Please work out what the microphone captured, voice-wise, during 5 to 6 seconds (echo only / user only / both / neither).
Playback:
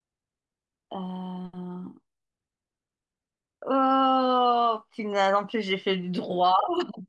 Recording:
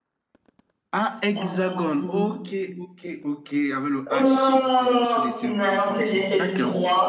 both